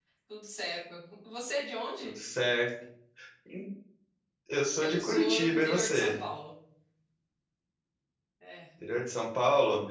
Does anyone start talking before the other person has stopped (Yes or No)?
Yes